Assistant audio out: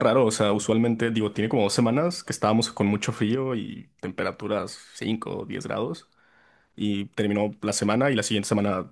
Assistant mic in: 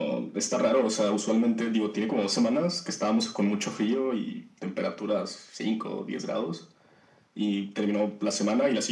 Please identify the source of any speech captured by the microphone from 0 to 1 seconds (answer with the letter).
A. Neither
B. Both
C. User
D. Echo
D